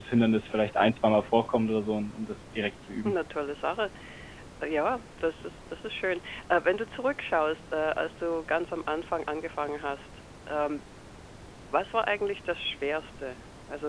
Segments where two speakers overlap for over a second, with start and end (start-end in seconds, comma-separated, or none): none